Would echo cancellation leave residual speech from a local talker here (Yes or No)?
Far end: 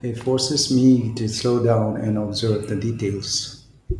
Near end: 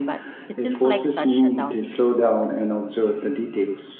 Yes